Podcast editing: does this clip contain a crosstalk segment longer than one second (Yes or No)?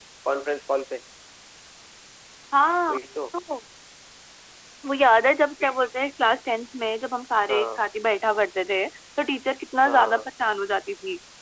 No